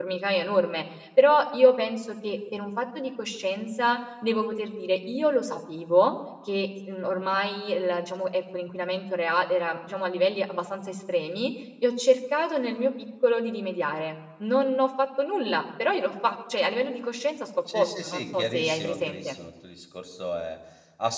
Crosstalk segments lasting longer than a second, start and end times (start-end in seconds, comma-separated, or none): 17.7-19.4